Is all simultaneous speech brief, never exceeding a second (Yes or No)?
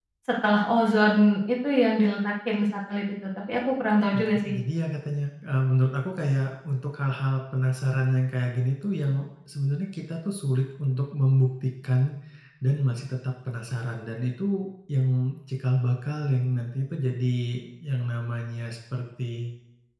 Yes